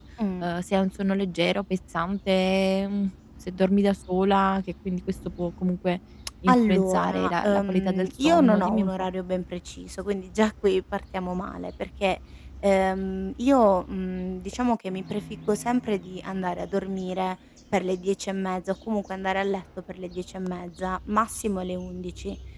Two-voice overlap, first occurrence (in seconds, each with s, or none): 6.5 s